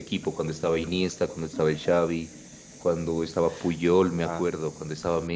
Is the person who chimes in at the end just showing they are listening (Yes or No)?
Yes